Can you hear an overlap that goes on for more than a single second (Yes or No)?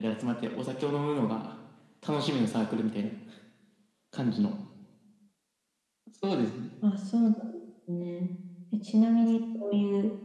No